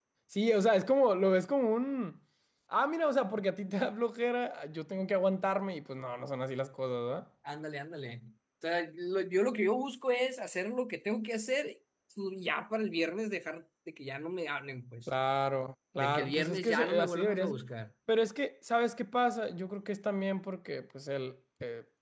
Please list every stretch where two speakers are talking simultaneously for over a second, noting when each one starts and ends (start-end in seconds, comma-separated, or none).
16.0-17.6